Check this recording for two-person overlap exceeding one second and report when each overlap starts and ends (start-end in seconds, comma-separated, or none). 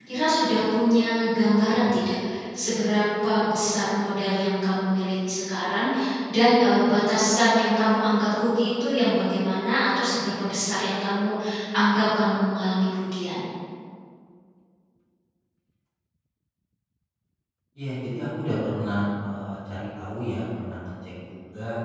none